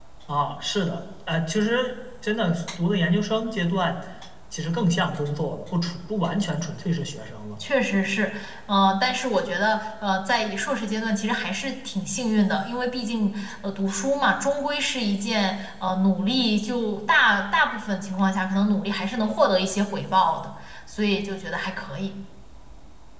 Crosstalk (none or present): none